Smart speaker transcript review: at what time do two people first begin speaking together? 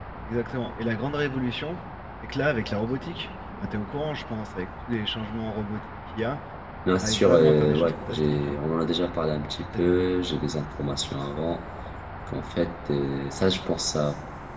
7 s

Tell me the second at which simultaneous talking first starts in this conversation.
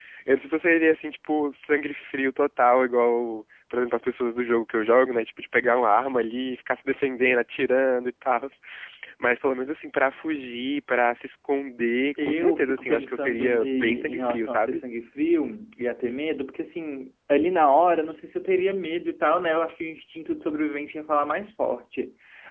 12 s

